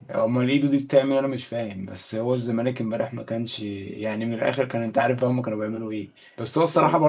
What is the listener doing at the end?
listening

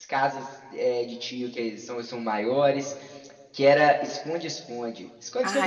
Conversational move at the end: taking over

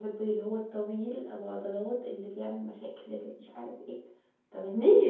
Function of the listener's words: taking over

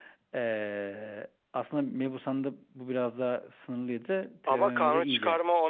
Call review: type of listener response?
taking over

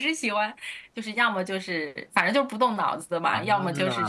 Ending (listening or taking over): listening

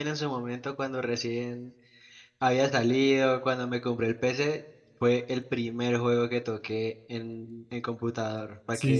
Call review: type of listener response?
taking over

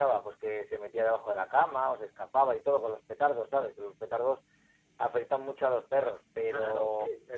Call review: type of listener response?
taking over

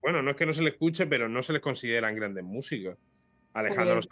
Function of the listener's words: listening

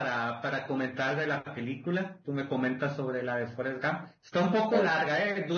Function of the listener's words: listening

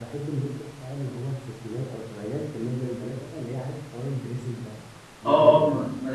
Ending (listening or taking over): taking over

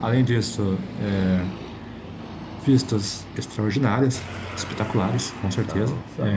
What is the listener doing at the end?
listening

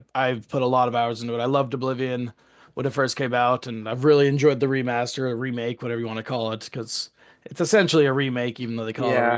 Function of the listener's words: taking over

